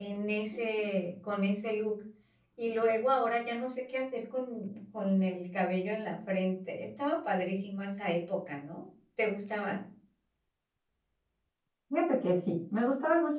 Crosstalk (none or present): none